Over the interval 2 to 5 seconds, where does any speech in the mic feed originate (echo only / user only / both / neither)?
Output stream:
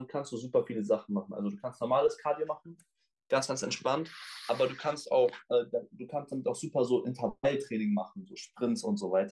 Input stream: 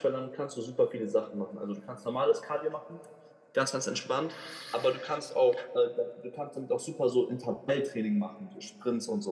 echo only